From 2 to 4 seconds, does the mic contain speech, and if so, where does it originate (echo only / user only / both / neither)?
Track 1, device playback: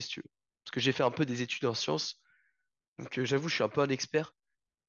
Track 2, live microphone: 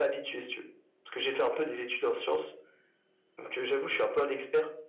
echo only